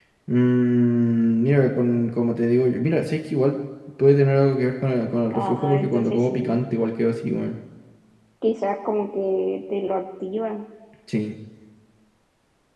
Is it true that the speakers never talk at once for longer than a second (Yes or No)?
No